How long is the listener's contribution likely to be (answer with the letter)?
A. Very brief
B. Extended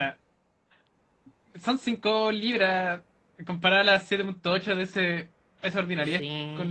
B